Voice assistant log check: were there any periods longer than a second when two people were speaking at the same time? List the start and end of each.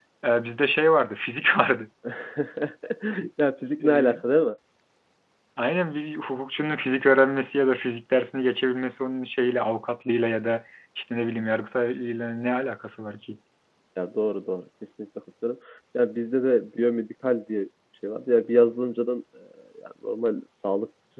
none

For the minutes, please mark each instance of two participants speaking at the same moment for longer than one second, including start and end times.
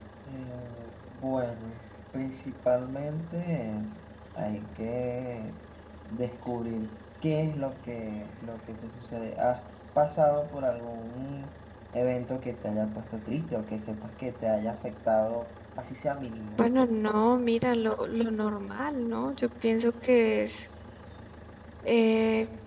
none

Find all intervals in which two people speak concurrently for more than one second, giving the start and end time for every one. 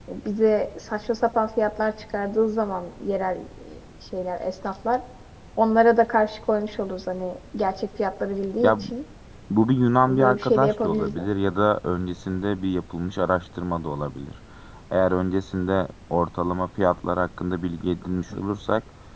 10.1-11.6

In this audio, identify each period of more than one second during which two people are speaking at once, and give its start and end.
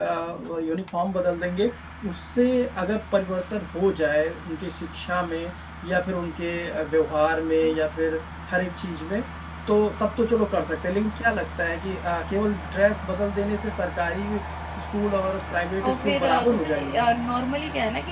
15.8-17.1

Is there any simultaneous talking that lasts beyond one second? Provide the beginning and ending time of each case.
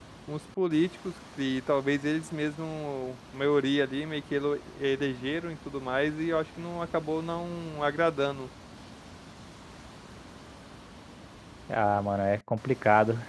none

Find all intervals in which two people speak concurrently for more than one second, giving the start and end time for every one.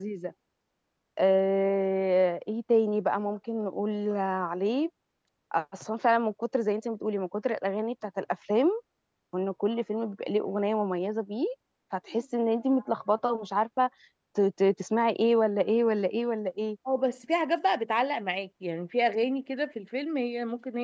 none

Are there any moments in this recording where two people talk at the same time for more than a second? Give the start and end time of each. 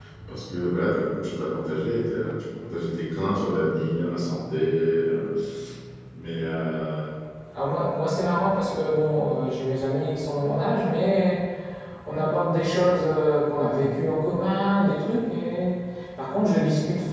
none

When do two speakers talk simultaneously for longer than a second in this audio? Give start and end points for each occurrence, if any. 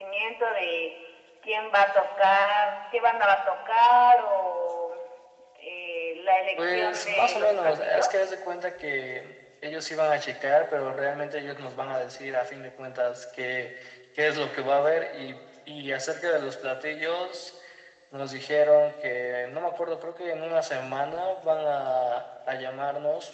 6.6-8.2

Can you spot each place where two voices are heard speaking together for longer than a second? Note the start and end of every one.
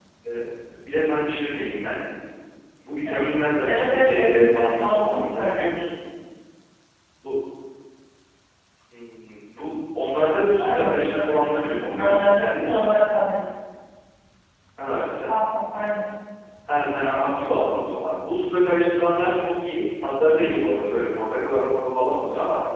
3.6-5.7, 10.6-12.7

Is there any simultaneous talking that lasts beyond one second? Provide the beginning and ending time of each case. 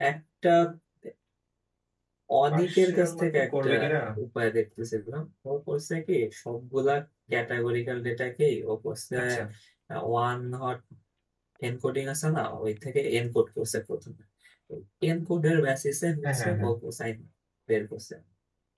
2.5-3.7

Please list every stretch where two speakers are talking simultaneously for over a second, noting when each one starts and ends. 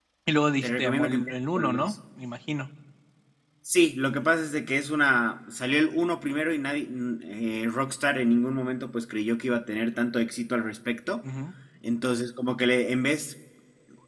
0.6-1.9

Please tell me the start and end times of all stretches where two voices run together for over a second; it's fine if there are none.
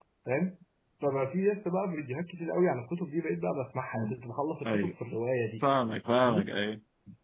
none

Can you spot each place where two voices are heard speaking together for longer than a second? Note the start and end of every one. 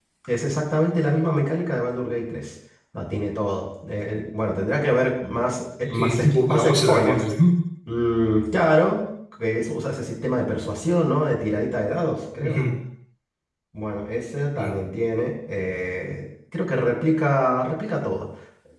5.8-7.2

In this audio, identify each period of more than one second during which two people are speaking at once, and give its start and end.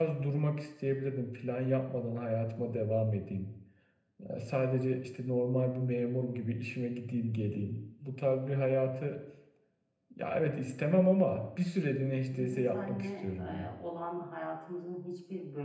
12.3-13.7

